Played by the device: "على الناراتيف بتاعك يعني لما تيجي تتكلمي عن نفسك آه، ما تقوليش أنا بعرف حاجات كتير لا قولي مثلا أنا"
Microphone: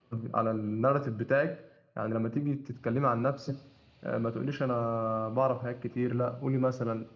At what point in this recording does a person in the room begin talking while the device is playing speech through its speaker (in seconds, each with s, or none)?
none